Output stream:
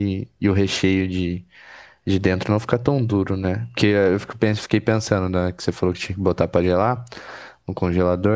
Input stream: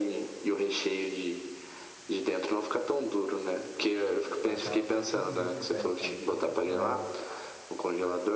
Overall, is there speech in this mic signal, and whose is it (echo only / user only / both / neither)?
both